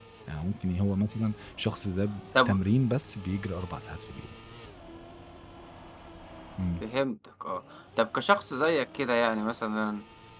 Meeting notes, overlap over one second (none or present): none